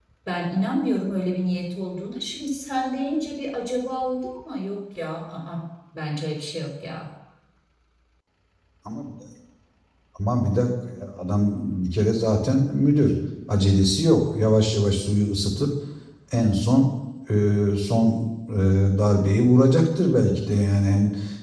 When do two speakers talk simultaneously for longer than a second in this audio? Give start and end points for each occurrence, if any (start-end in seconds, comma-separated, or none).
none